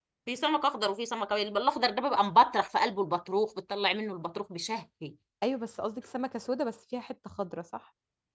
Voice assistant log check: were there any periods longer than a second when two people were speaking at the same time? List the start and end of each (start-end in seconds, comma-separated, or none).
none